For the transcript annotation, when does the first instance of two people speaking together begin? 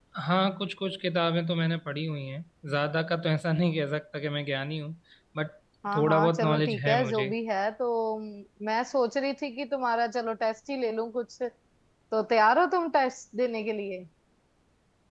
6.0 s

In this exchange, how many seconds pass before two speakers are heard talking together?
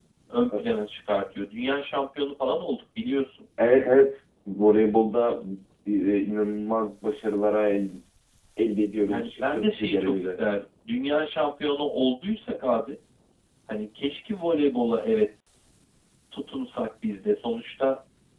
9.1 s

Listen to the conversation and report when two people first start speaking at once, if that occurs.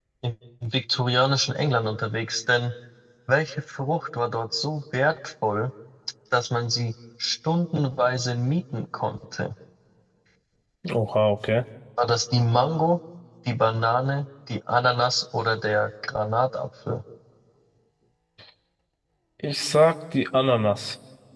none

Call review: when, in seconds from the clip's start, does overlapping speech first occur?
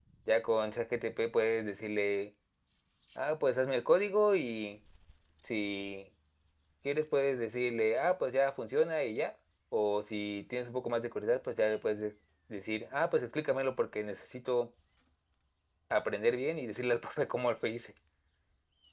none

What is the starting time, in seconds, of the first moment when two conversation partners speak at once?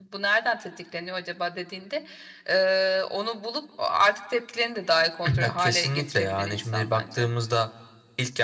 5.4 s

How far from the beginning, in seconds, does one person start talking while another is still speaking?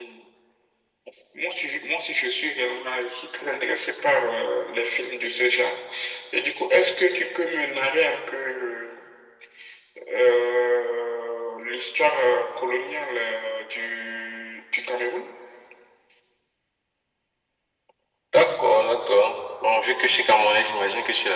none

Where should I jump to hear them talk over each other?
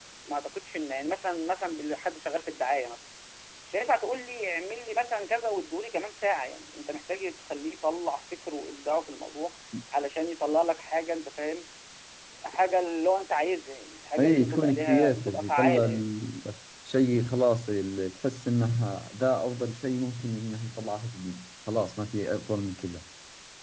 14.2 s

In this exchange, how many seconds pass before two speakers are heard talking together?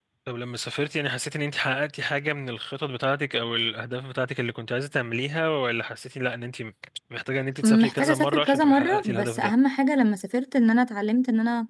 7.6 s

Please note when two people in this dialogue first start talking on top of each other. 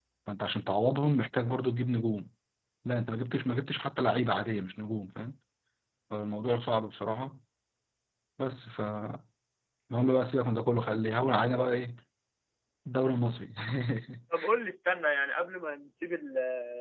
none

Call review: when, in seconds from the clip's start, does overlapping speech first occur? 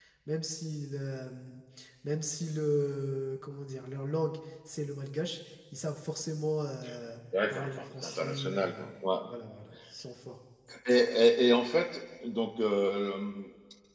7.3 s

